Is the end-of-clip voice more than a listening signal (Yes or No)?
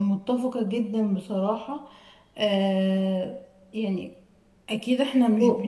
No